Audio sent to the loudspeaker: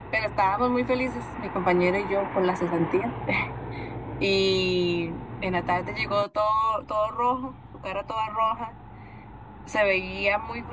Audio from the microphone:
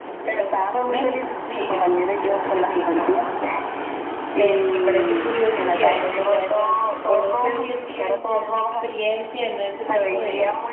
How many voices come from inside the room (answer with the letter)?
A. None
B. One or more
B